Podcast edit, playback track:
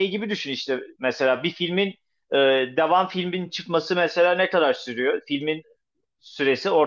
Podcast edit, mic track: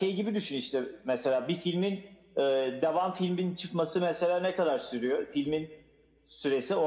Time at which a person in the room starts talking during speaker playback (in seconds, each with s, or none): none